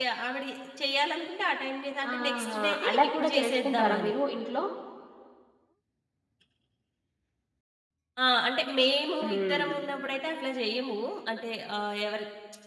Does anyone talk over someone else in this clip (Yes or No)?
Yes